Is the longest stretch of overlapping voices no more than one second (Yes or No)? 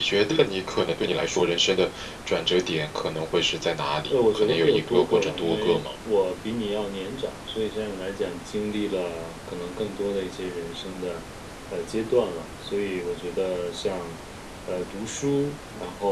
No